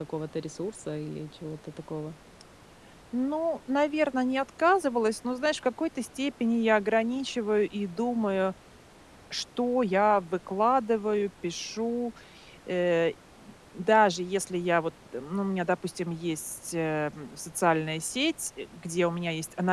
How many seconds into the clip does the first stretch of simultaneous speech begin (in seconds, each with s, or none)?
none